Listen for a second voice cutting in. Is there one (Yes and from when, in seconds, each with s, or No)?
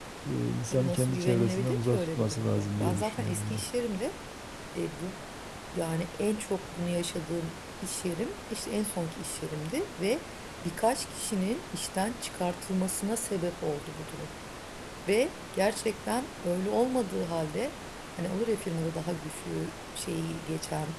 Yes, from 0.7 s